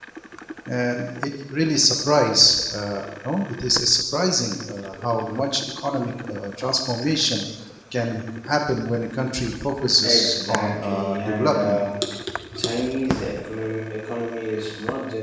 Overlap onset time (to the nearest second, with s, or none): 10 s